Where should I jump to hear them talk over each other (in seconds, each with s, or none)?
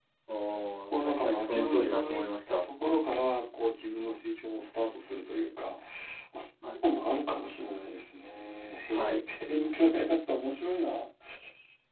1.0 s